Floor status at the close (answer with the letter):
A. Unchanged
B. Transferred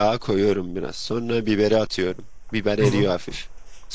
A